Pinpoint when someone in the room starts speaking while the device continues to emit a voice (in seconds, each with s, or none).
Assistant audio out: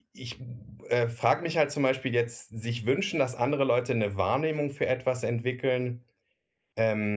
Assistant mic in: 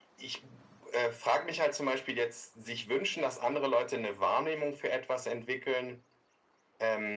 none